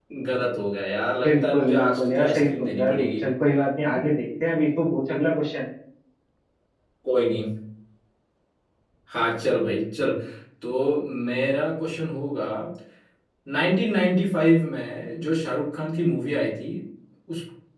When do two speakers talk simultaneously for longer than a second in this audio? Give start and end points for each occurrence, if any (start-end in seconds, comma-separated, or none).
1.2-3.1